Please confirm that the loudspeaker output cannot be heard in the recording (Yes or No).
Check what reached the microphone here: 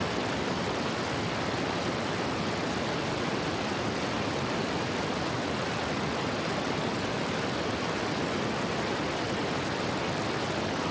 Yes